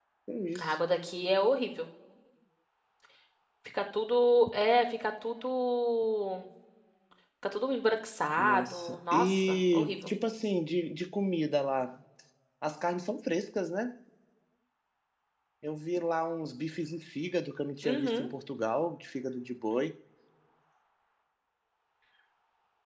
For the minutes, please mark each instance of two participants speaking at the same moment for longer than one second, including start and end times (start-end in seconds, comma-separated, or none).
8.4-10.1